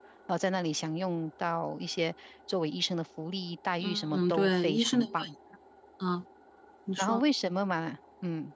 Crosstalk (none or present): present